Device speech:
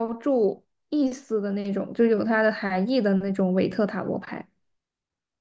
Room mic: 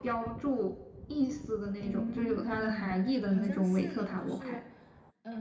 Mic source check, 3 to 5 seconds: both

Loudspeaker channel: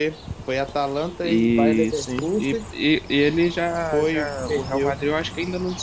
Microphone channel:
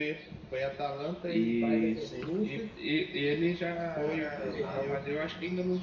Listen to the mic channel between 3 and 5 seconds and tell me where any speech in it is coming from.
both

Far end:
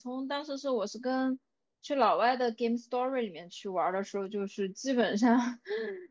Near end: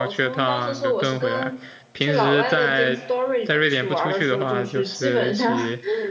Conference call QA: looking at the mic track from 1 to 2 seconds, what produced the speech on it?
both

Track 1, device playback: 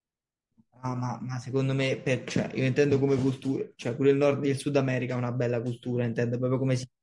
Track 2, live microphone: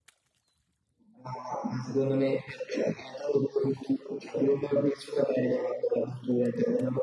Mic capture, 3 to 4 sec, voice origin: echo only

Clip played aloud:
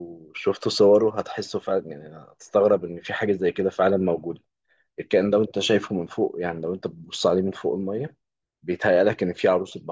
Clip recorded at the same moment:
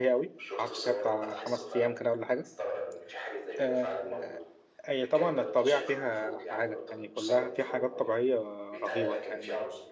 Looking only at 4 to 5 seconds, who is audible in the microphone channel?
both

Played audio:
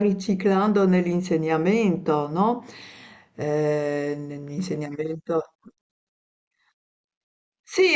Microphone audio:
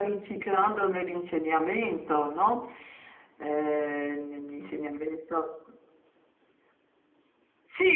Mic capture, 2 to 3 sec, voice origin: echo only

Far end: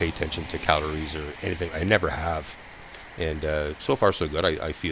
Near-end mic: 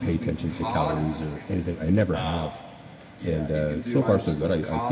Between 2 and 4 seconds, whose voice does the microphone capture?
both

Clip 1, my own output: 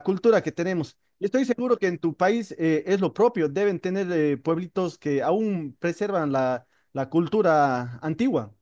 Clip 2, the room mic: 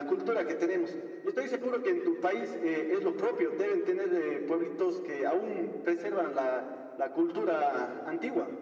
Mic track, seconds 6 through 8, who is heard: echo only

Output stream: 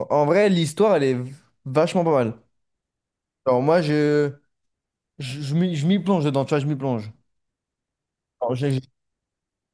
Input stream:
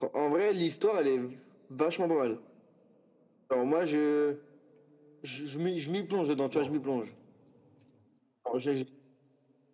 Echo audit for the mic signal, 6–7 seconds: both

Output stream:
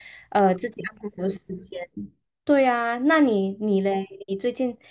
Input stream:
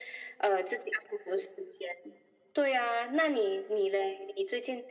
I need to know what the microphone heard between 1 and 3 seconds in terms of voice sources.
echo only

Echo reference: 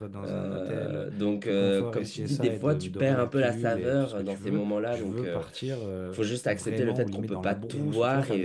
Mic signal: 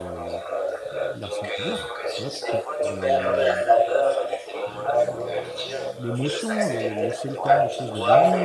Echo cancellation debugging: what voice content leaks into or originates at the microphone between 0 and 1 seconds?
both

